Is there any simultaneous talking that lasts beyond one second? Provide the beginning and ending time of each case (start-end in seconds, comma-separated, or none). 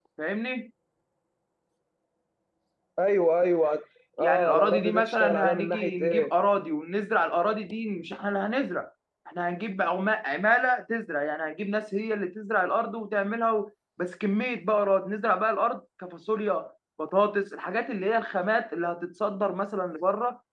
4.2-6.3